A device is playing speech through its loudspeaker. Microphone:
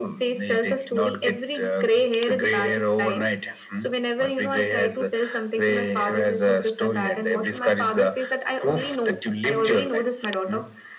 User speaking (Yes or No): No